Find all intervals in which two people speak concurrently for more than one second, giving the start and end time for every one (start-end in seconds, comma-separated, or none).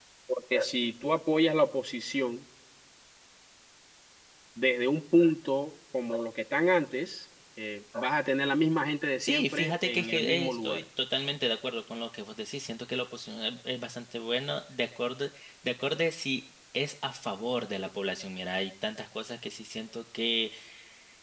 9.2-10.8